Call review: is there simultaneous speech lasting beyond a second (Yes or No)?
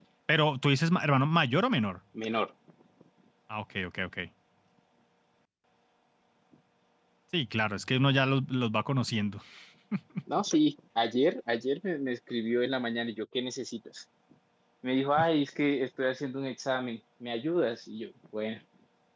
No